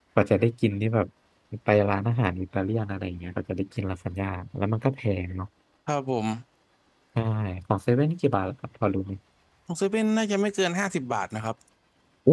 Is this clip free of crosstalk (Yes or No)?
Yes